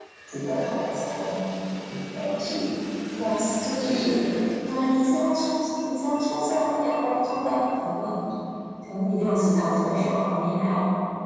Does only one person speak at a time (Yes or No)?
No